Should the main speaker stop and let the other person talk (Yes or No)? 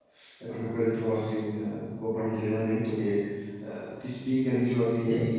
No